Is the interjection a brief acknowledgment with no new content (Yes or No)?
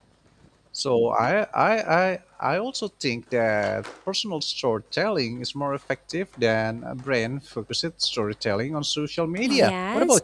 No